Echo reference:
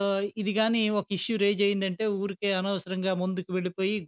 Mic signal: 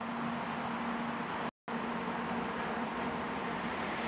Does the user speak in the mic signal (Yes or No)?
No